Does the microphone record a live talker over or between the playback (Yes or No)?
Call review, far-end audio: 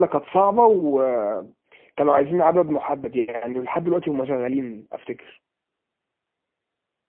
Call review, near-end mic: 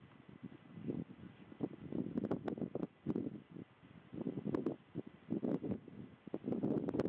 No